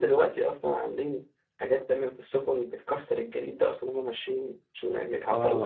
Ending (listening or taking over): taking over